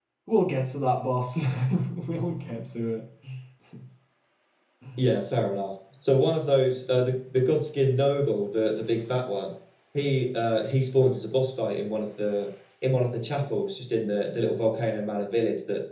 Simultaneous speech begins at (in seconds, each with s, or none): none